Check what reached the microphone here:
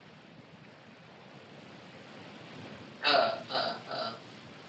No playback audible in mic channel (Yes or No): Yes